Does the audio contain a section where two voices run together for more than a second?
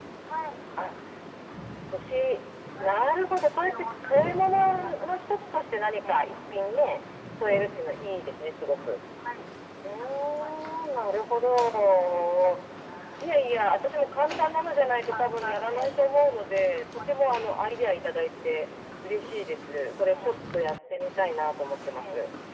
Yes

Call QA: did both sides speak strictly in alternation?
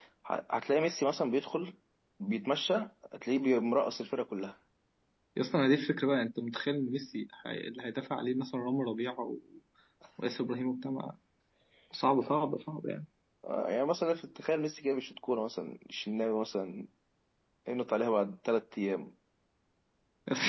Yes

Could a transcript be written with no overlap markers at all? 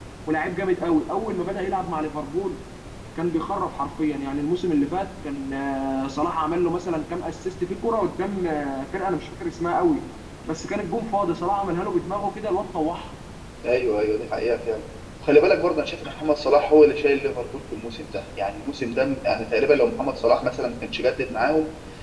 Yes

